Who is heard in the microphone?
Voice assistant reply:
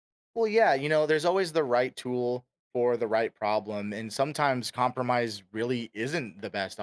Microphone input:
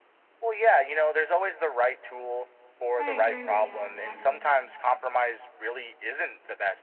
both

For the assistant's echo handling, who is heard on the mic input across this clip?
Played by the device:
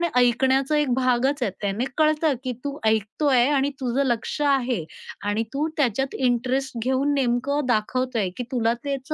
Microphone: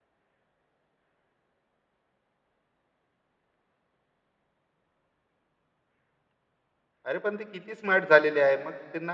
user only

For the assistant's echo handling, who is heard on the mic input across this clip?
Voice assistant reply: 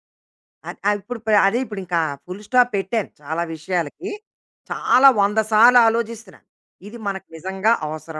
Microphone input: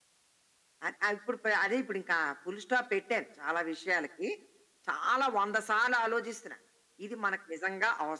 echo only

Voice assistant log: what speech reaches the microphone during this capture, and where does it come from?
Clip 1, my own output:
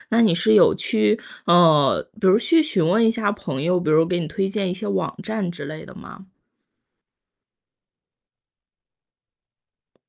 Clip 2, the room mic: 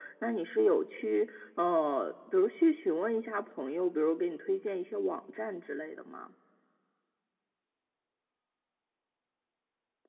echo only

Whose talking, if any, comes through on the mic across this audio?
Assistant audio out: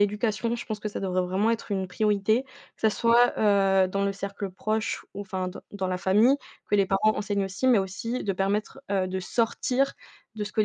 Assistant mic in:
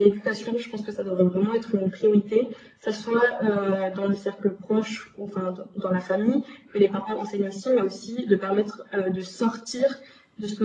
echo only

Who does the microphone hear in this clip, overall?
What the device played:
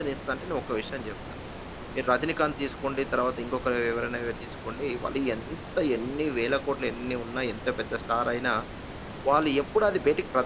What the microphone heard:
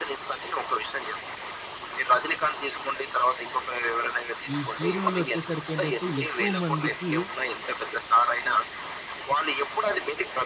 both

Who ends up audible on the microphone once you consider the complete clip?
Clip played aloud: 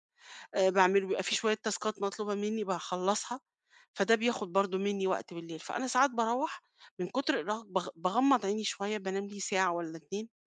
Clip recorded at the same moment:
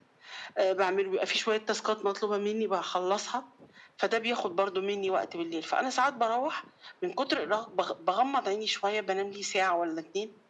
echo only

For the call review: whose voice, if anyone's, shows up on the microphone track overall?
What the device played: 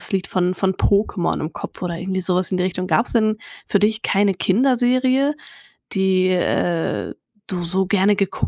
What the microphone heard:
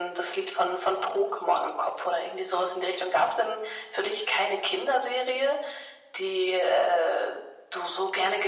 echo only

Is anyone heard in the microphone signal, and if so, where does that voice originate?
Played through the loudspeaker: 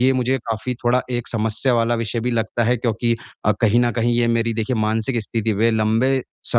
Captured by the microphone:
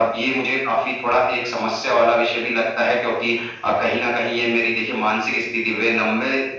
echo only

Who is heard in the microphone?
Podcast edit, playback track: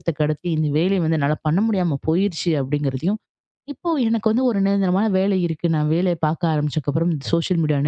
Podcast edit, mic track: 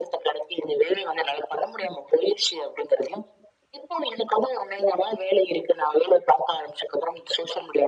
echo only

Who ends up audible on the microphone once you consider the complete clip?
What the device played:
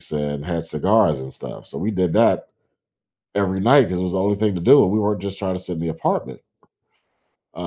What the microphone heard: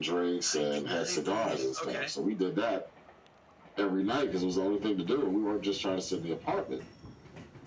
both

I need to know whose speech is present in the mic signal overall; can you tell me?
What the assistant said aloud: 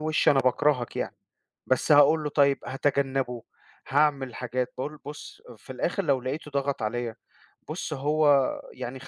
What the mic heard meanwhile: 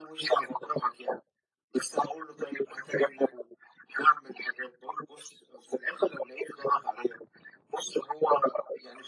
echo only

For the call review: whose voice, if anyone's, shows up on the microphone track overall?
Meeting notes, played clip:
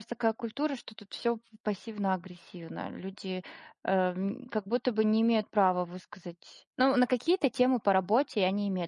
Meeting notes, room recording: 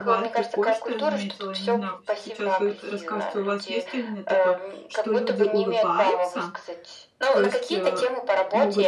both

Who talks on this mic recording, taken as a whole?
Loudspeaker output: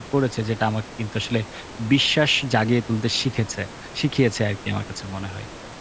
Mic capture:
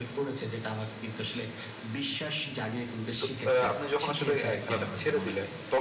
both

